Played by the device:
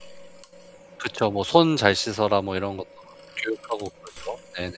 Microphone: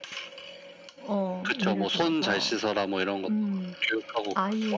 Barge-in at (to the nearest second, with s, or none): 1 s